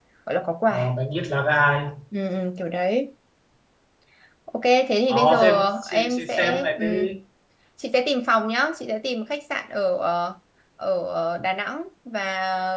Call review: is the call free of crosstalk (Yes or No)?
No